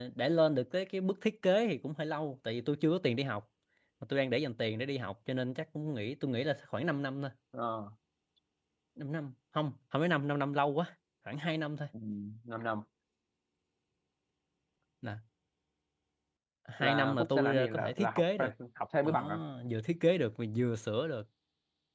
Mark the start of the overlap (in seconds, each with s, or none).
16.8 s